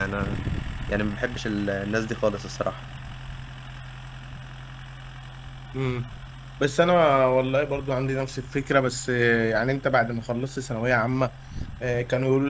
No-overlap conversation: Yes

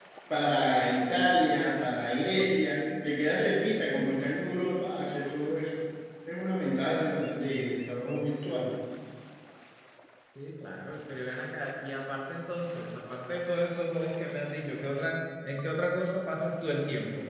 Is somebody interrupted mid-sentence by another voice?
No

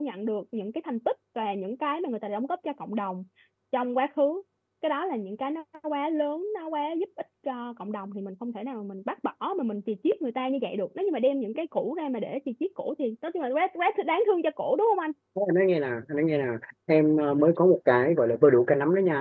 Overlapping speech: No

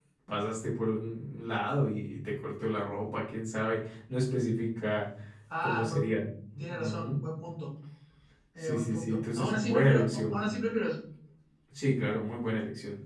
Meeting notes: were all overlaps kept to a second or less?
No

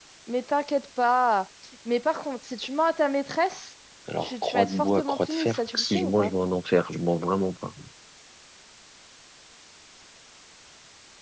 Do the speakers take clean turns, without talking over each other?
No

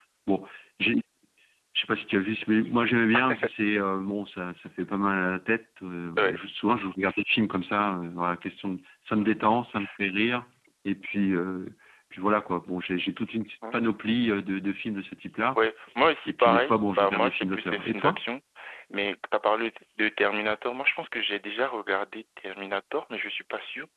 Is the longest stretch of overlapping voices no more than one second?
No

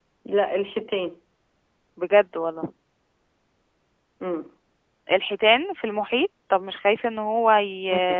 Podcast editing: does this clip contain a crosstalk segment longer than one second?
No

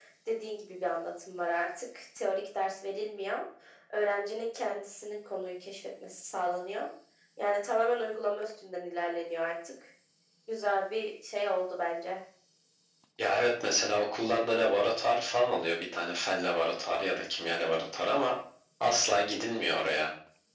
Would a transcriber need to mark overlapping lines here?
No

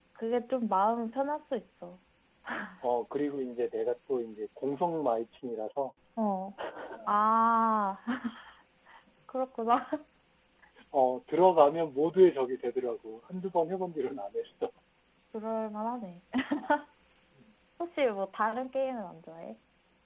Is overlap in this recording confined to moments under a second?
Yes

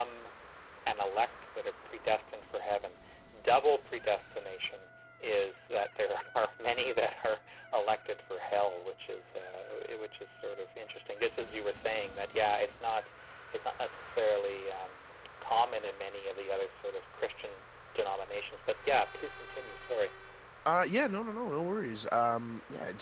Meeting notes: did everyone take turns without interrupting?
Yes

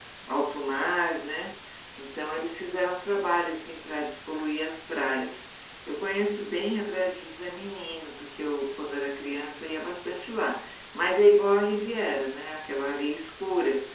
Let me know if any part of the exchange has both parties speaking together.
No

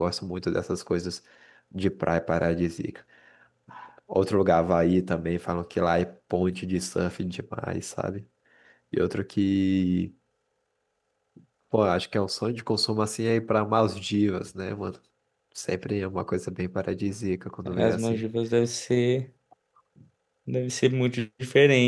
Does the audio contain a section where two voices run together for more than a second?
No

